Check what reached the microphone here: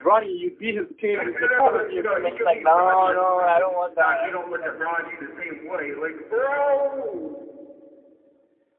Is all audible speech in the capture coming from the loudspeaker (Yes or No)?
No